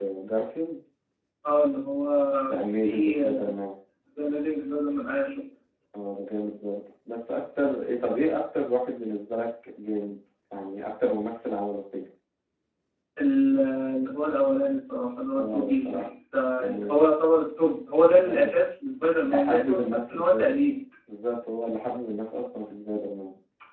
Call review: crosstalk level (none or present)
present